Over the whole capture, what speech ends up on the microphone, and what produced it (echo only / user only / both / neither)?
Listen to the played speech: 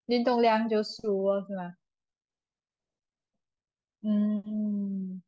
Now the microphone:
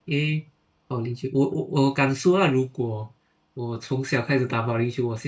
user only